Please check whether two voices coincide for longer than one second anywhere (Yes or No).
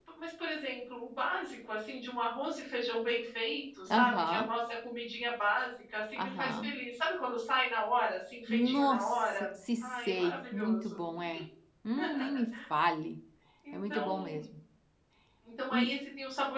Yes